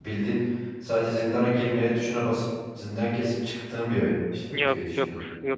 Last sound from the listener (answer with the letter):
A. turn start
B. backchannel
A